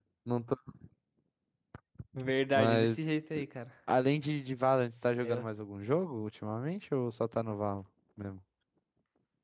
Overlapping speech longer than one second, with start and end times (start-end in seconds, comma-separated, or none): none